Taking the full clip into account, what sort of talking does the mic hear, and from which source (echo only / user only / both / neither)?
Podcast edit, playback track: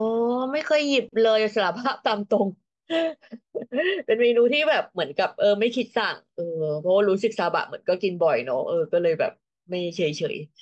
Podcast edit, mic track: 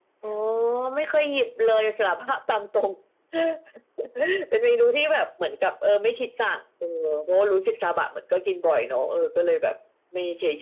echo only